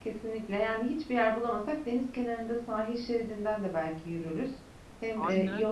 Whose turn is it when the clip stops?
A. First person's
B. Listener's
A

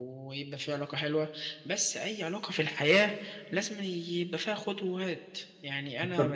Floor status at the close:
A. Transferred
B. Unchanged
B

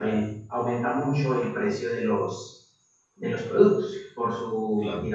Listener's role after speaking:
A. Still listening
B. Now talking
A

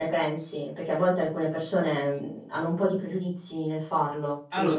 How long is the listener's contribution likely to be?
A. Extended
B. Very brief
A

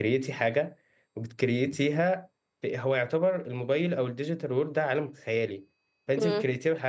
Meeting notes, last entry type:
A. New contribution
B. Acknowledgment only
B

